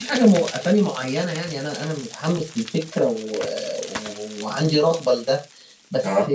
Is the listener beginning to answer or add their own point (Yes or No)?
No